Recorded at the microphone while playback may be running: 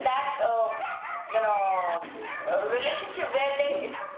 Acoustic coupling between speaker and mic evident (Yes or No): Yes